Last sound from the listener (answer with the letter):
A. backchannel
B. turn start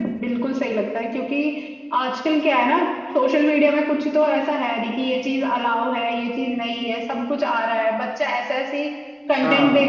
A